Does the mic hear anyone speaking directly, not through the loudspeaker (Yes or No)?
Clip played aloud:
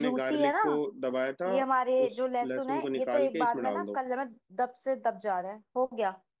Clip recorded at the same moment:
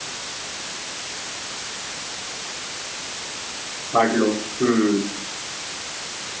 Yes